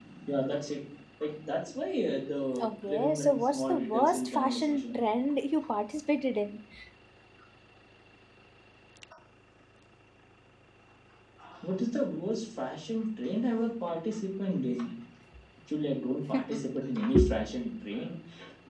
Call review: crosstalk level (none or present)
present